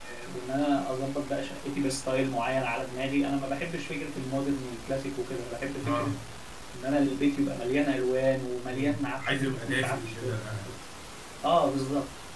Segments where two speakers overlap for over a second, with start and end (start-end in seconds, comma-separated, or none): 8.7-10.2